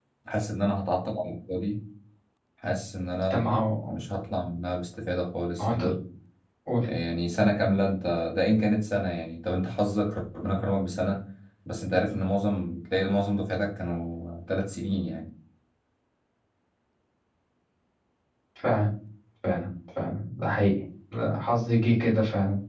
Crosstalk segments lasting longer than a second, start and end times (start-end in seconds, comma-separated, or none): none